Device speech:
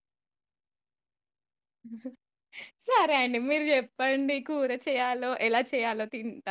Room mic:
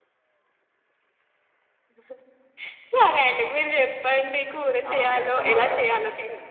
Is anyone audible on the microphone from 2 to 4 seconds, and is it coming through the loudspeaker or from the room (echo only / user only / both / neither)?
echo only